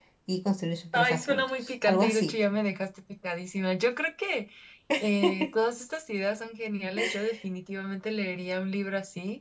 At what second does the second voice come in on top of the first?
0.9 s

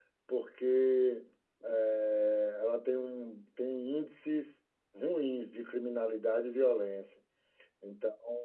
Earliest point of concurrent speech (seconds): none

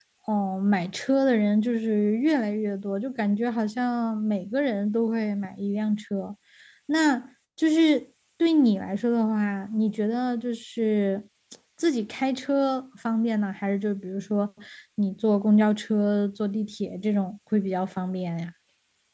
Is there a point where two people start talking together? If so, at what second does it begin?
none

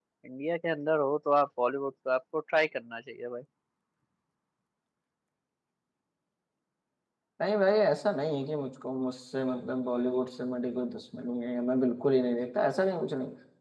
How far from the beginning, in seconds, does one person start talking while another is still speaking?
none

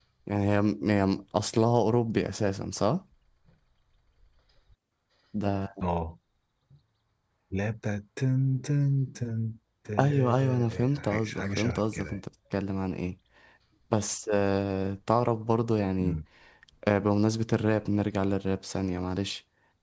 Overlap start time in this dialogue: 10.0 s

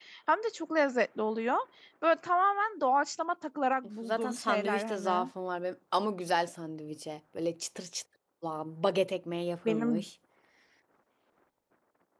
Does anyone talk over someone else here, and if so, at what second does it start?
4.0 s

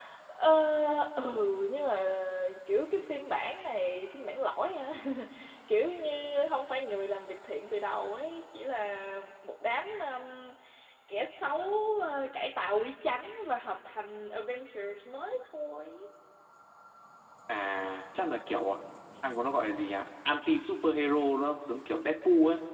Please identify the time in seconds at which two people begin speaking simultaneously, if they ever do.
none

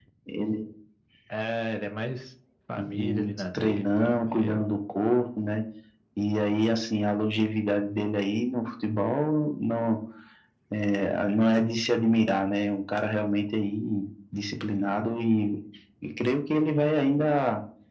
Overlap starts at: 2.8 s

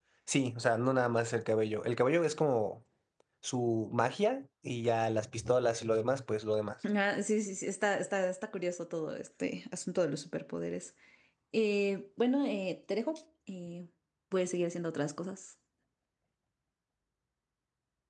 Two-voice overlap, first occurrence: none

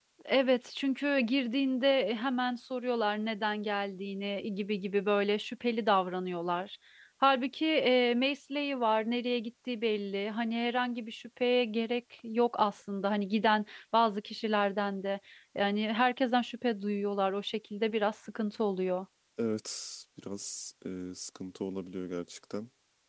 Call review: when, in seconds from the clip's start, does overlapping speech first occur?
none

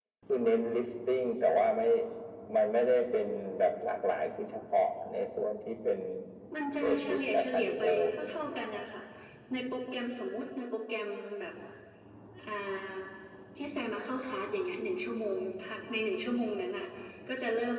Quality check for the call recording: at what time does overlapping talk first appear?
6.8 s

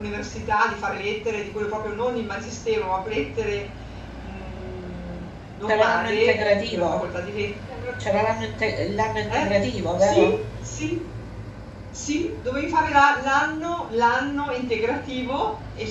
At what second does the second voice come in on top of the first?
5.7 s

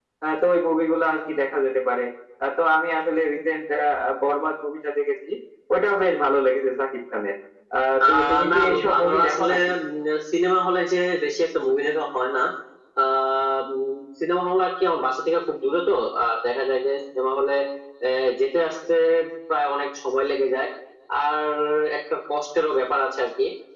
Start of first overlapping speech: 8.0 s

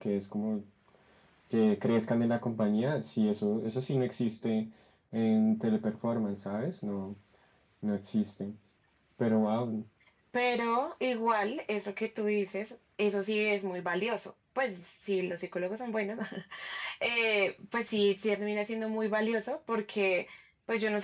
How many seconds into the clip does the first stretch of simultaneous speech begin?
none

